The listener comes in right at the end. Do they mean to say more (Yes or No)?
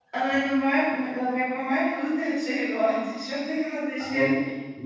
Yes